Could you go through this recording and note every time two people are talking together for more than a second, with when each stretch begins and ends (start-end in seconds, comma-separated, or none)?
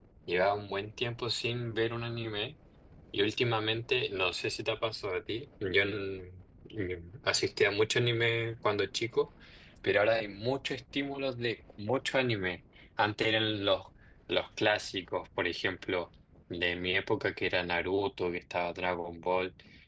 none